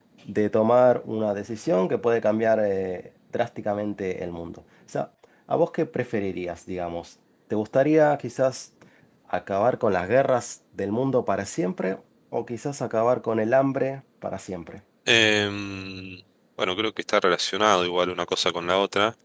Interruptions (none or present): none